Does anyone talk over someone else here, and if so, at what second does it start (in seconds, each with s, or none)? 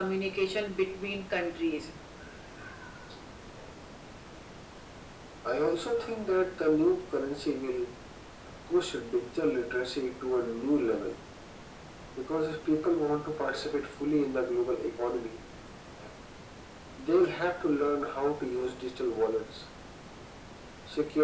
none